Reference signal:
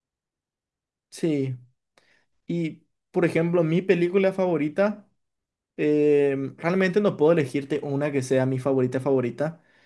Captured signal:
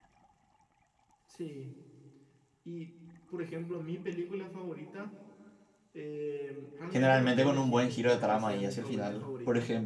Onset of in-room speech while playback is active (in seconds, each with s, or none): 6.9 s